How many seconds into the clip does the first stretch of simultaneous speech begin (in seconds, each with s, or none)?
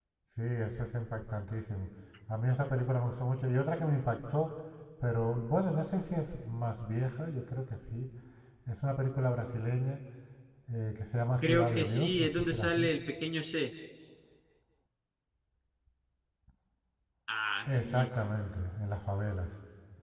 11.4 s